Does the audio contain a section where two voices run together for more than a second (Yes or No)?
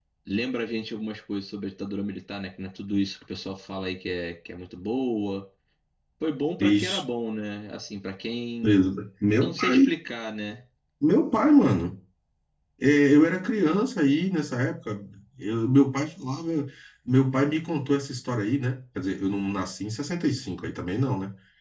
No